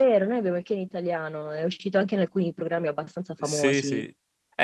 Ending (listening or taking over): taking over